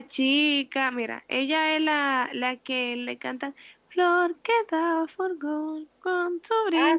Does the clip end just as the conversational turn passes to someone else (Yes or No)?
Yes